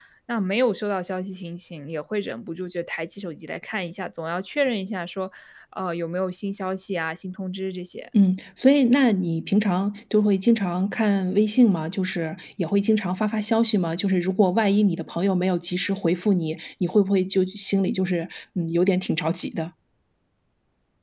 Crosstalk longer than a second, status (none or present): none